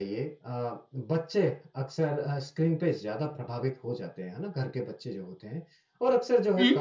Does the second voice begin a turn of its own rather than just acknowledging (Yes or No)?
No